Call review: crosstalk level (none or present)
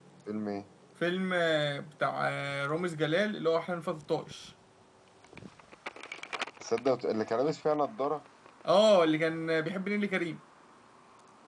none